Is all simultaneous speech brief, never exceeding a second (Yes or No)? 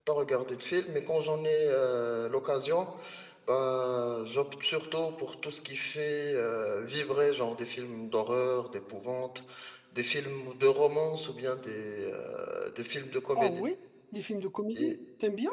Yes